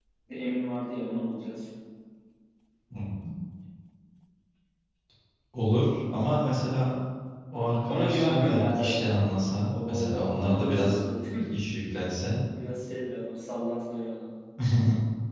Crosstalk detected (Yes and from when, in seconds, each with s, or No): Yes, from 7.9 s